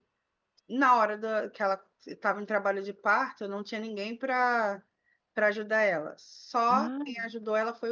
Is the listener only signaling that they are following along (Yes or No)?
Yes